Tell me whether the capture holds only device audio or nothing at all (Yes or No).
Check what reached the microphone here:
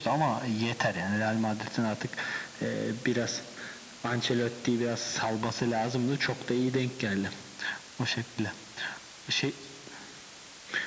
Yes